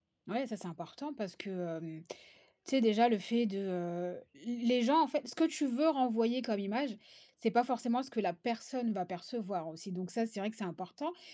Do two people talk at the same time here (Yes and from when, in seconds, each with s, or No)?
No